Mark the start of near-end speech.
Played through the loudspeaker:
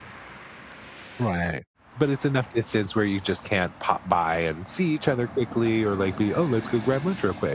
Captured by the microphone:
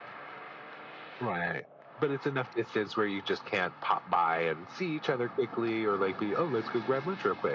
none

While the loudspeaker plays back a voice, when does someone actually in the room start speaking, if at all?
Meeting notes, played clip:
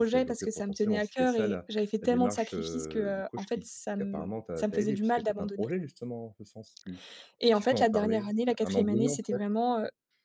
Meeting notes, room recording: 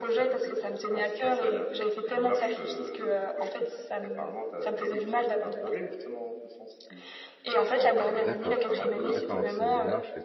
8.2 s

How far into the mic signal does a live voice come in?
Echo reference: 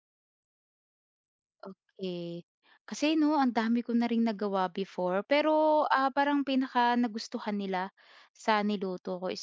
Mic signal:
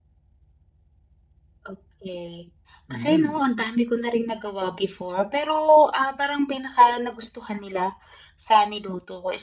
2.9 s

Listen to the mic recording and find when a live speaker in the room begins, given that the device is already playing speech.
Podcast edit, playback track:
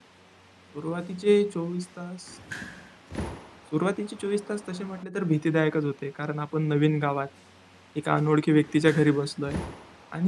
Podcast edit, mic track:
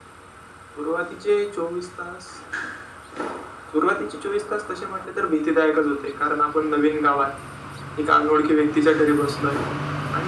none

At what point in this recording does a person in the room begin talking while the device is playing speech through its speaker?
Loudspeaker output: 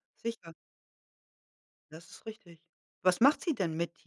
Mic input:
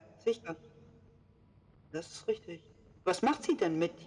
none

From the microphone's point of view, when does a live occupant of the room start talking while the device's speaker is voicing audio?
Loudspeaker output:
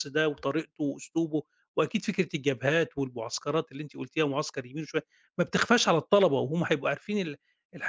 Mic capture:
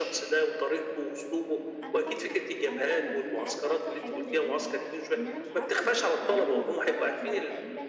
1.8 s

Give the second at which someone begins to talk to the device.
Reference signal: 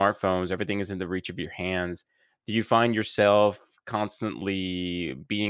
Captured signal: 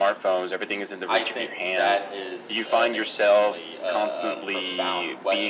1.1 s

